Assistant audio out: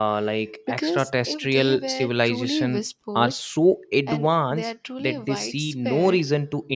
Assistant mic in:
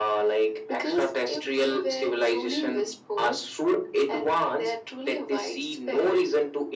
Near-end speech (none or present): none